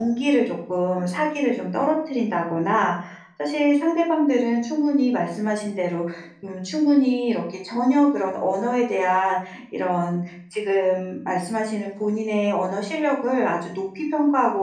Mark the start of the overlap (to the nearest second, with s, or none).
none